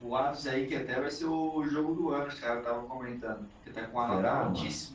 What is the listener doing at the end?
listening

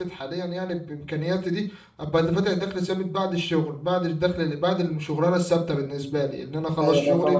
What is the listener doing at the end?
taking over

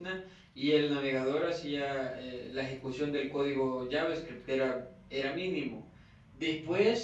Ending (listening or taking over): listening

